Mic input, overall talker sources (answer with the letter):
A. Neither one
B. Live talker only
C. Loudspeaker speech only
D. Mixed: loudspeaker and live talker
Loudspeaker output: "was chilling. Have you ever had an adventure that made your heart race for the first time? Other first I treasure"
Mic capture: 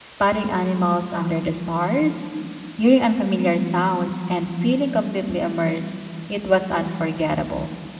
B